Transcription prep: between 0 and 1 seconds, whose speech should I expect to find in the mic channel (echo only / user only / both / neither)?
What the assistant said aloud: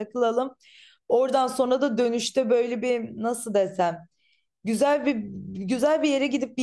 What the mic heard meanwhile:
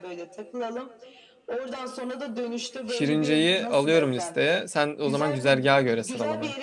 echo only